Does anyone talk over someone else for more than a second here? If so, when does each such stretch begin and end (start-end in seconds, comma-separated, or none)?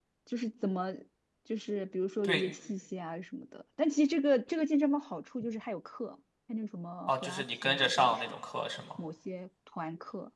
7.1-8.3